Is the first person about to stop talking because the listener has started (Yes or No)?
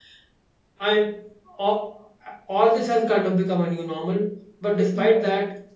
No